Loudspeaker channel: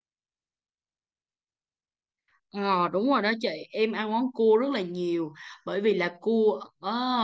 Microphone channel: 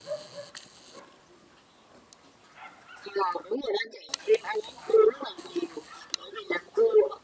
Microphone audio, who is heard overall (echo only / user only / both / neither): echo only